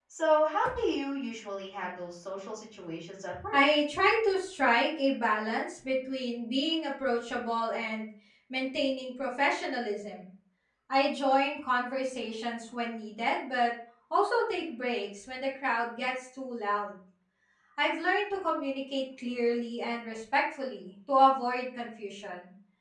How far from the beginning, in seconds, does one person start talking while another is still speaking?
none

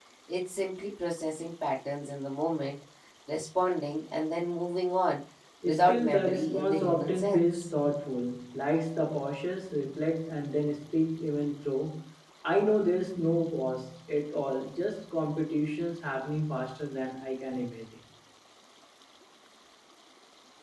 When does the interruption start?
6 s

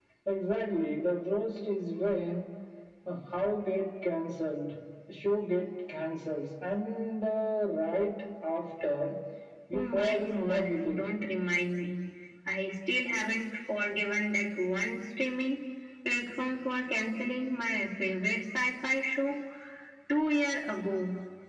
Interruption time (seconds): 10 s

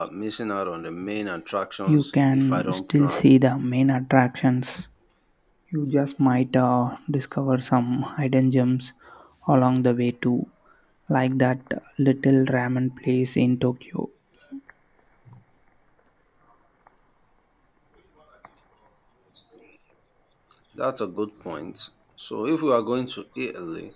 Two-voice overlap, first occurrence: 2 s

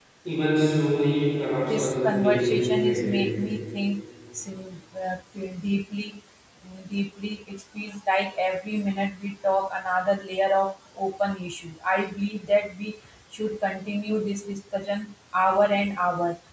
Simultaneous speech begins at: 2 s

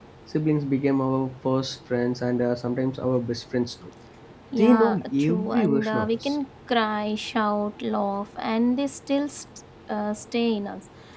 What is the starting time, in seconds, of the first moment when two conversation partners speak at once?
5 s

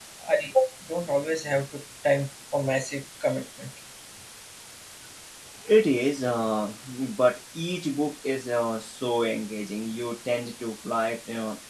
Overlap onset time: none

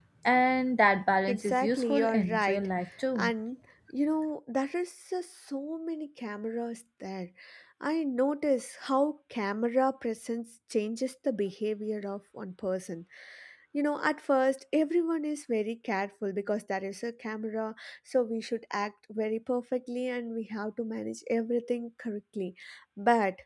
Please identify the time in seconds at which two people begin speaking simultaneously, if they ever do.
1 s

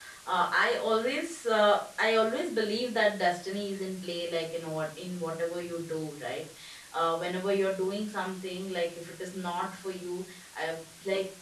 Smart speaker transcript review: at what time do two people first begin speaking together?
none

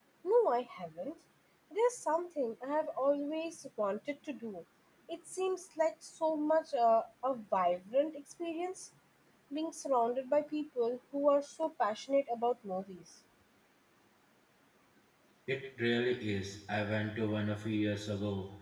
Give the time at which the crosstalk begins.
none

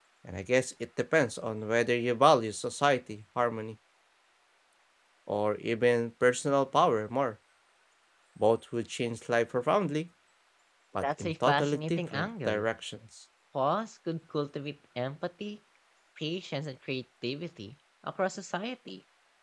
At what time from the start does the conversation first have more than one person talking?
11 s

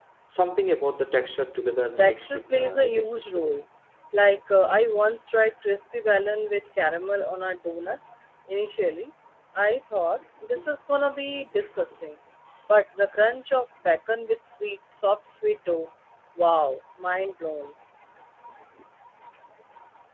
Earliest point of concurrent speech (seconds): 2 s

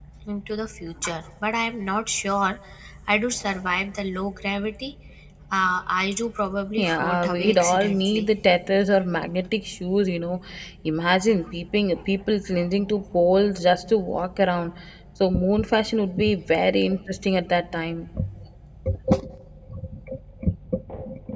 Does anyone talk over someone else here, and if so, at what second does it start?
7 s

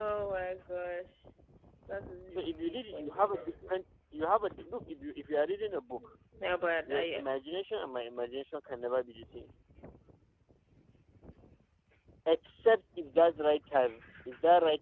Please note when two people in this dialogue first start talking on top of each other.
2 s

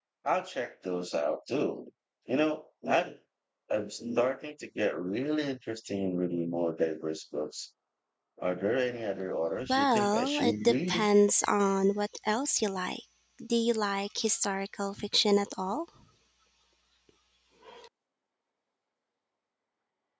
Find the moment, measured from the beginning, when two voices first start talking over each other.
10 s

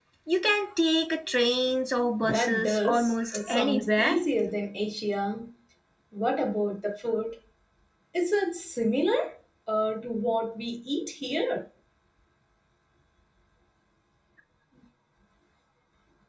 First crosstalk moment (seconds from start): 2 s

